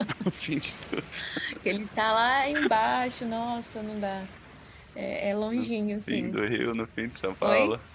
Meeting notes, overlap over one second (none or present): none